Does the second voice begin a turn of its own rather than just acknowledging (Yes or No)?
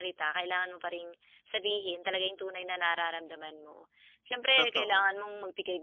No